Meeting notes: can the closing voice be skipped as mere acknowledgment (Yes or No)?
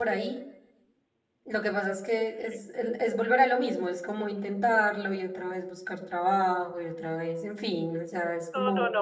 No